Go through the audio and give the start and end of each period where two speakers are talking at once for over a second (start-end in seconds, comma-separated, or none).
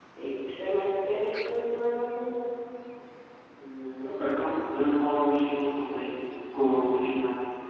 none